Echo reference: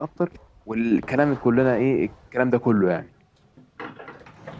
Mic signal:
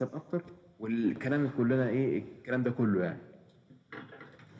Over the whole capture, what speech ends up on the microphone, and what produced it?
echo only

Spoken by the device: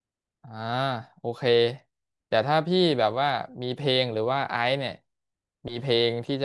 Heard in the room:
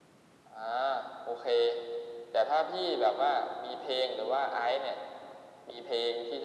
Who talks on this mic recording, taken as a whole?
echo only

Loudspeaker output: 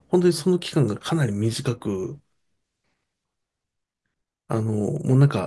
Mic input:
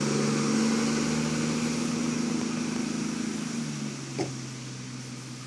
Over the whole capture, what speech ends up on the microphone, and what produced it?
neither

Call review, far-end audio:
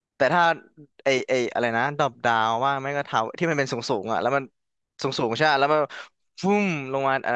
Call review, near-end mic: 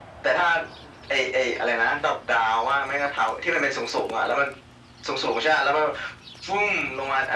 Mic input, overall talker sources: echo only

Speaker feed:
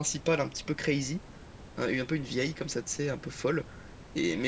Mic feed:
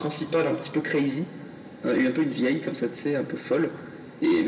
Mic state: echo only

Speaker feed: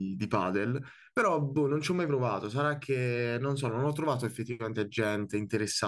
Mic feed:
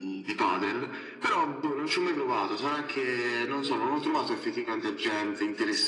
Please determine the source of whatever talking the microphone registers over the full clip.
echo only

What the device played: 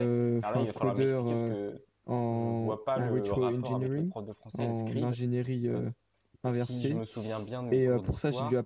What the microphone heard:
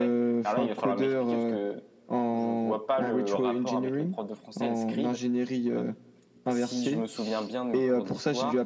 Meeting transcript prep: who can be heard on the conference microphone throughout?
echo only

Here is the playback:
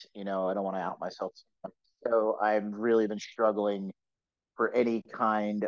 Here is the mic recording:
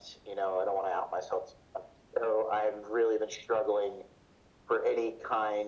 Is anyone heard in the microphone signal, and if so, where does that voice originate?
echo only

